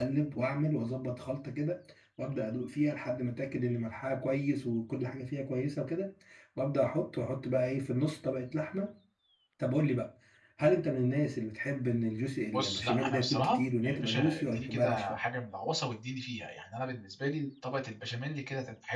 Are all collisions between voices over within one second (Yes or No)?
No